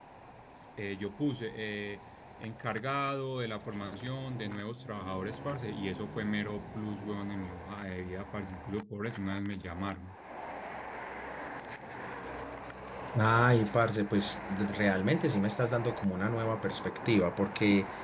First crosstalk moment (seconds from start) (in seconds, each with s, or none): none